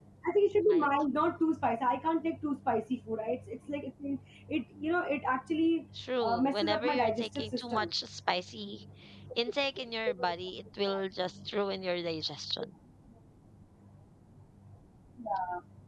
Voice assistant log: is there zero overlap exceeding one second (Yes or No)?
No